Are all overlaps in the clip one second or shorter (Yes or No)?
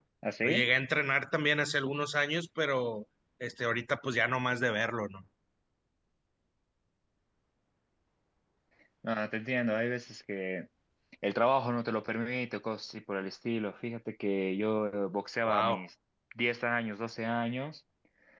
Yes